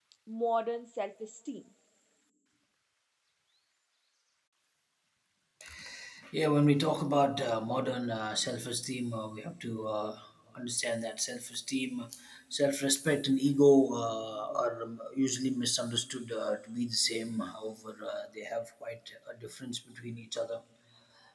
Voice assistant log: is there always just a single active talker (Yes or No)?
Yes